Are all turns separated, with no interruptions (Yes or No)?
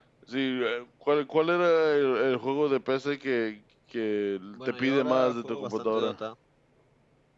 No